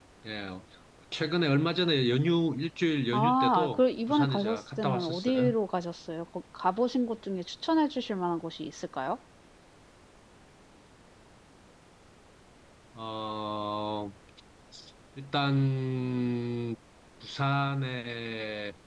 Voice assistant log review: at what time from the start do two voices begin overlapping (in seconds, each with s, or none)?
3.1 s